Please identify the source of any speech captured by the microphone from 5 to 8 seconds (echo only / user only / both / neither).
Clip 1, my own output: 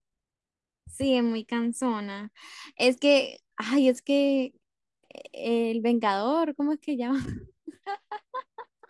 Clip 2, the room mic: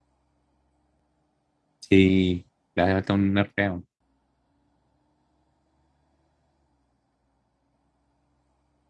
neither